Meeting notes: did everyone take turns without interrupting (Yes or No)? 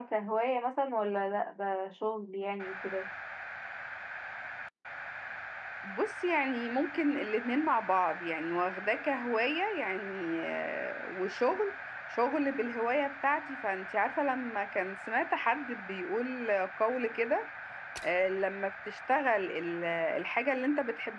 Yes